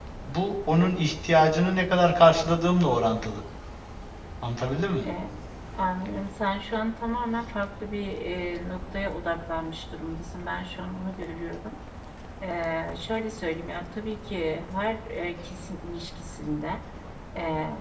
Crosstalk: none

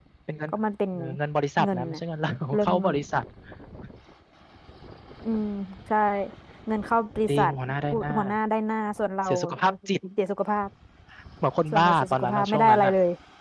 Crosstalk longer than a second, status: present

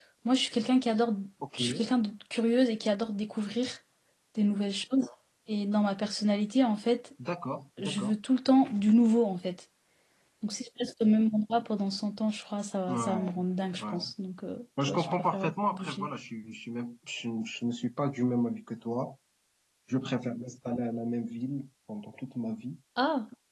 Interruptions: present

